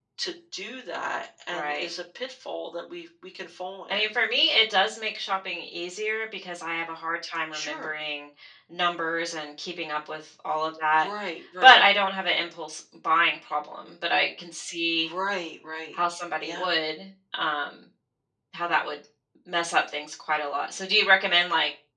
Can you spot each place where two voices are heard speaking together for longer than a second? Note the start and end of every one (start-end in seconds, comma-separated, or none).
none